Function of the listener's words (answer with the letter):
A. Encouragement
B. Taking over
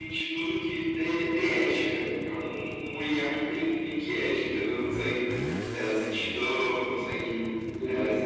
A